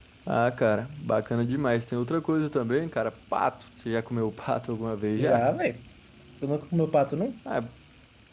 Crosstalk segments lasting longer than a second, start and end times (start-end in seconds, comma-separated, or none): none